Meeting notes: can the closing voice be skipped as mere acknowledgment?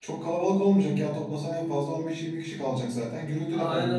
No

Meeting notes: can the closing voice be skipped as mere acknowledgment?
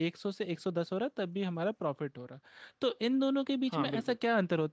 Yes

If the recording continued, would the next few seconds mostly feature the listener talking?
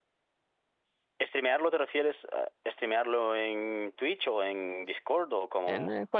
Yes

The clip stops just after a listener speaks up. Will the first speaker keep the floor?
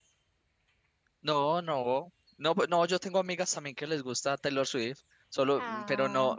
Yes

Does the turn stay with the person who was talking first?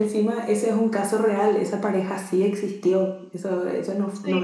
Yes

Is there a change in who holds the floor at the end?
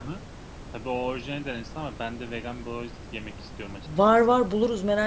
Yes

